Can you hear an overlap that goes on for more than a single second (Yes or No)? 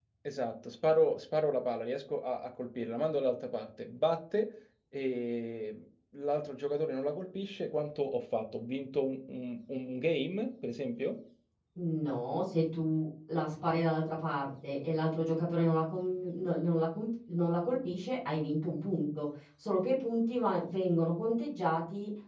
No